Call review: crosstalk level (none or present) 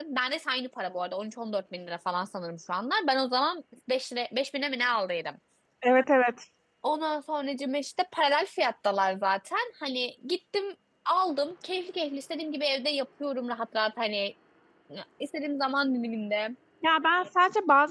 none